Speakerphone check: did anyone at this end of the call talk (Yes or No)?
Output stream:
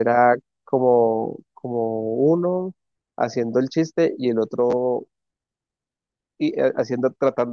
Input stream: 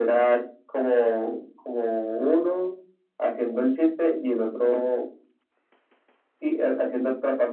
No